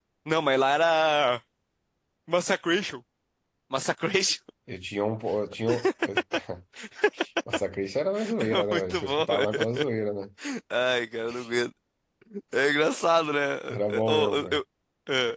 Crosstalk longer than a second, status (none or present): present